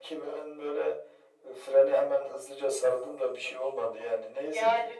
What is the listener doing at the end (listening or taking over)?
taking over